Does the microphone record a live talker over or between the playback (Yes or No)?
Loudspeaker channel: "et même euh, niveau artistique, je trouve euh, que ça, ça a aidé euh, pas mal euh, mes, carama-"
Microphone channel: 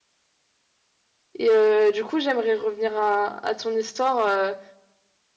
Yes